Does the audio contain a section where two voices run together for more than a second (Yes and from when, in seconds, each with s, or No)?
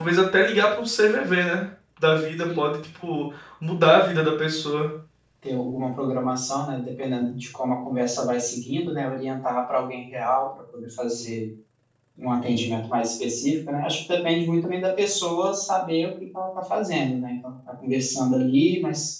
No